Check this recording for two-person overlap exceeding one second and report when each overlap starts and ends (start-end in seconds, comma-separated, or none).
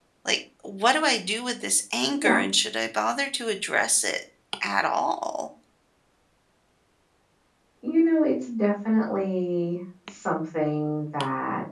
none